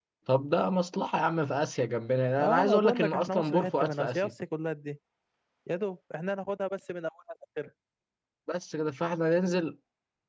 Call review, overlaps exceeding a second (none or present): present